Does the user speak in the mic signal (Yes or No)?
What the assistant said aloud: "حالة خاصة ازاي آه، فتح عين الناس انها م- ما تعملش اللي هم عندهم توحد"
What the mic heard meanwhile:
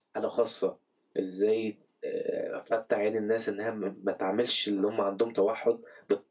No